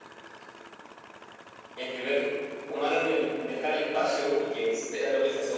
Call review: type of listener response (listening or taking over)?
listening